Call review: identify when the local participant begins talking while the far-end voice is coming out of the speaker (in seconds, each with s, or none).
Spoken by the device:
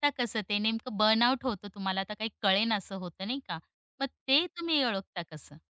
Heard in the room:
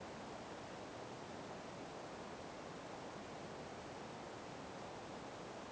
none